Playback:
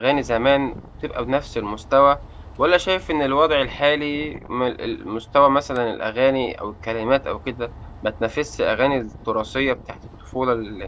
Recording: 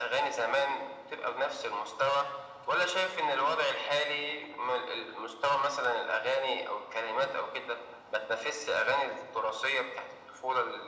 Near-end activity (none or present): none